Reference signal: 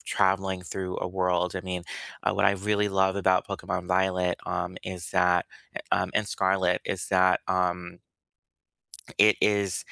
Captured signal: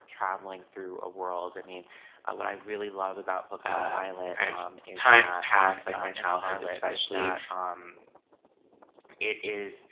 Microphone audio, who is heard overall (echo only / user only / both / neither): both